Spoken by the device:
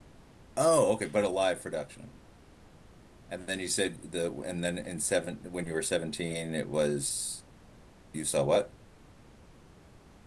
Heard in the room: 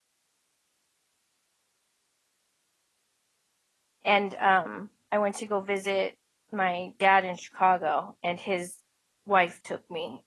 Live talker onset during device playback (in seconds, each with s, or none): 4.1 s